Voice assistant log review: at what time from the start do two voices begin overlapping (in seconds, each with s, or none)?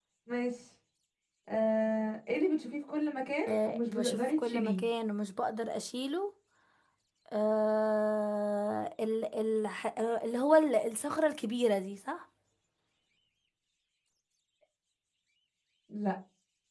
3.5 s